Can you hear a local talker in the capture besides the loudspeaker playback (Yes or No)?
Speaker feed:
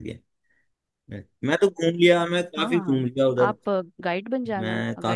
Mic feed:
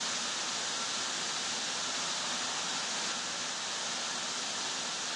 No